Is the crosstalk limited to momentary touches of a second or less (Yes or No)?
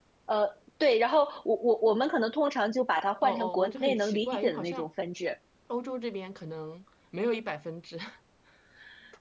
No